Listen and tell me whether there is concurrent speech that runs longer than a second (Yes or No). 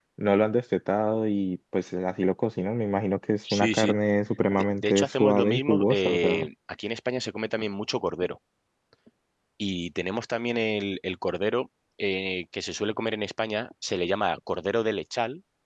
Yes